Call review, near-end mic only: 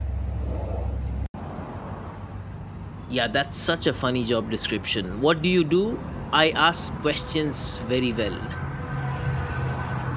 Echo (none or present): none